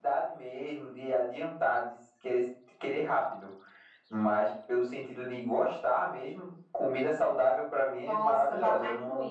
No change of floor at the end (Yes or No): No